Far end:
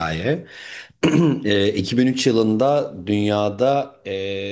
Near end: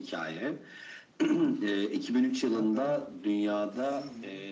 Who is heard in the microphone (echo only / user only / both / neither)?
both